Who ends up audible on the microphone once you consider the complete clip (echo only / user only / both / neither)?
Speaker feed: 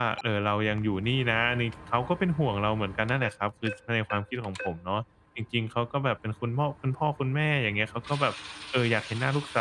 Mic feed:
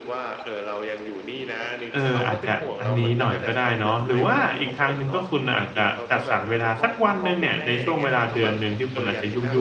both